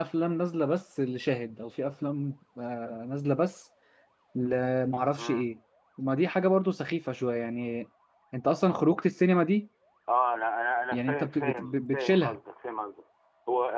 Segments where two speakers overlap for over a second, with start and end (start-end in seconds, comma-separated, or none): 10.9-12.4